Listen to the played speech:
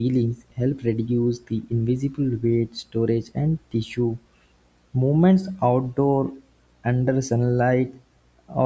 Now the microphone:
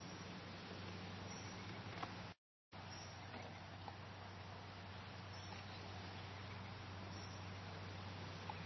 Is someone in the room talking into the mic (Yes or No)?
No